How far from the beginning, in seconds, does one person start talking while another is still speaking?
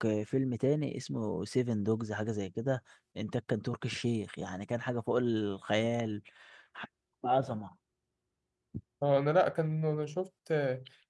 none

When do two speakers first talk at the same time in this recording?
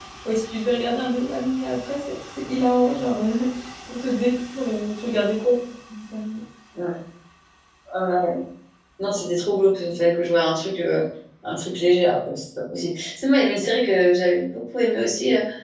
none

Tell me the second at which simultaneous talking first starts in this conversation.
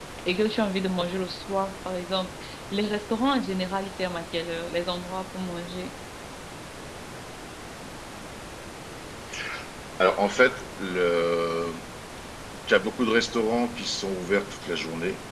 none

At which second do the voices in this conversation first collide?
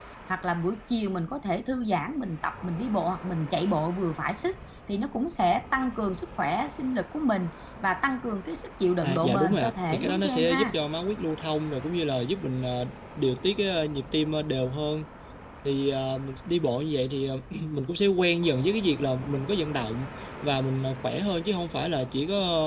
9 s

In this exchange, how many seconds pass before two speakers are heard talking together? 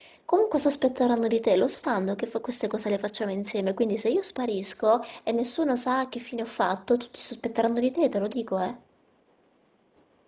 none

